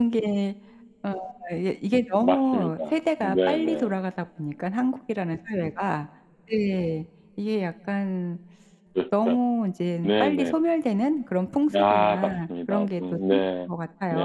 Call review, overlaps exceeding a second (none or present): present